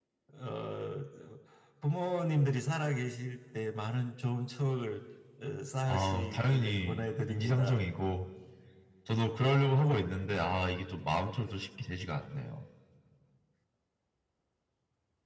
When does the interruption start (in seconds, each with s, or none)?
5.9 s